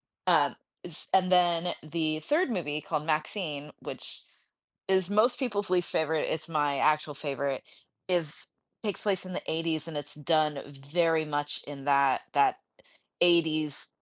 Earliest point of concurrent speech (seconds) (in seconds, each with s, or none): none